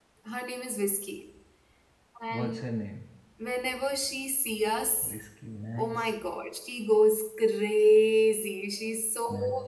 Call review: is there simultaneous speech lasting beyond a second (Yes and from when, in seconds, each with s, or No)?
No